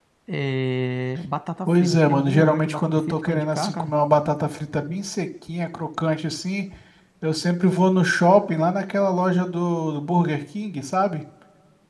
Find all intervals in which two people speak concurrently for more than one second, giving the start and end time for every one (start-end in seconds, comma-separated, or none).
1.7-3.9